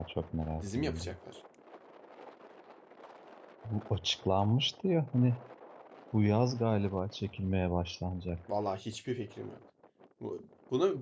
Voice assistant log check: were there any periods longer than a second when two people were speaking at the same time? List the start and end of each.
none

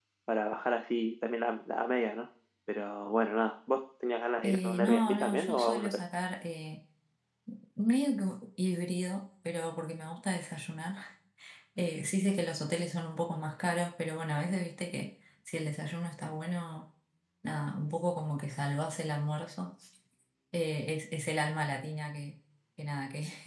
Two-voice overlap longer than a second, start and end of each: 4.4-5.9

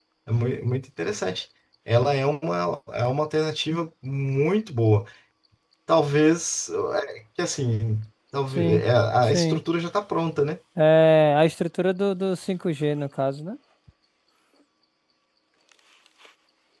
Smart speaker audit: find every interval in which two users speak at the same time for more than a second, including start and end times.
none

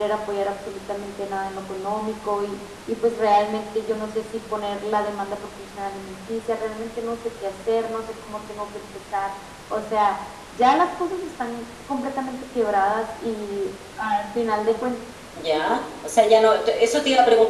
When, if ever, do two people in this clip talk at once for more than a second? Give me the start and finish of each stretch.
none

